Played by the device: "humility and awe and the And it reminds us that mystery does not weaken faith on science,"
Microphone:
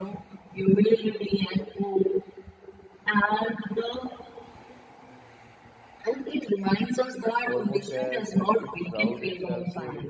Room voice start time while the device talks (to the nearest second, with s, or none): 7 s